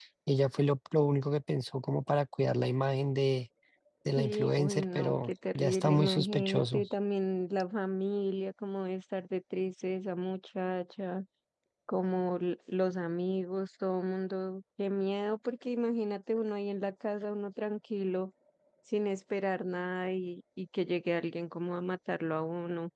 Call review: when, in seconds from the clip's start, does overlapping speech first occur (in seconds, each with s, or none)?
4.2 s